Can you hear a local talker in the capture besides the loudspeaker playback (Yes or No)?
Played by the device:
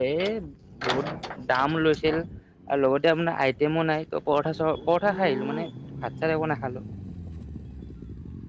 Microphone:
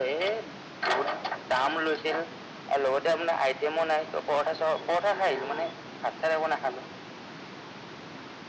No